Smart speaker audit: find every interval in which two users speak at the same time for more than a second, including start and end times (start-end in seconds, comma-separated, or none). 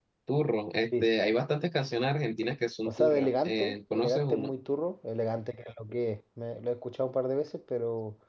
2.8-4.5